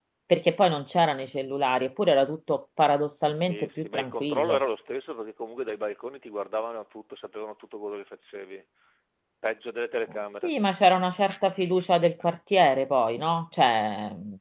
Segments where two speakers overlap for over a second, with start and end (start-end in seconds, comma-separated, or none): 3.3-4.6